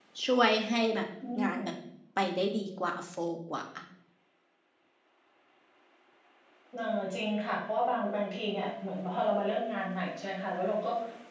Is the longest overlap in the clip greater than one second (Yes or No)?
No